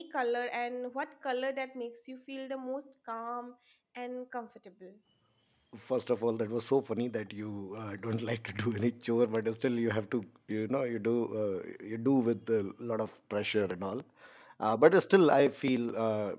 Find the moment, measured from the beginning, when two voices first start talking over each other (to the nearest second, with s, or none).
none